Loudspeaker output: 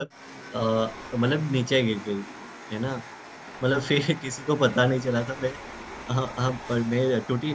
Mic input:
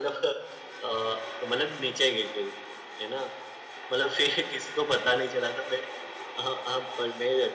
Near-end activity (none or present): none